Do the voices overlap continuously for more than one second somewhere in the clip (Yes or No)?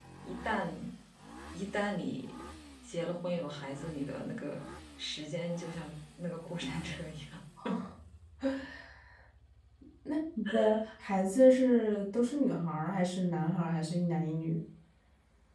No